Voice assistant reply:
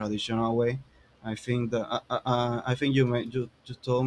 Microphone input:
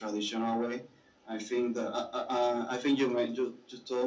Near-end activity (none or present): none